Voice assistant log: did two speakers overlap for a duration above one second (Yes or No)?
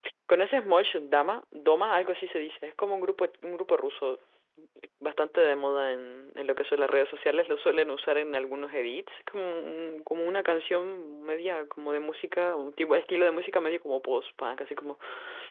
No